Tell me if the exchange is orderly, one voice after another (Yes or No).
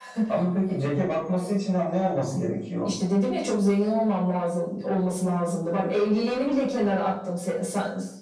Yes